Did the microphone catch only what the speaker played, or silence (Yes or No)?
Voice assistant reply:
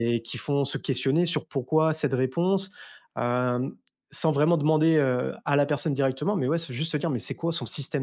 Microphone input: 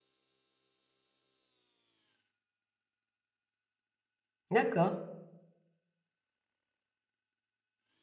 No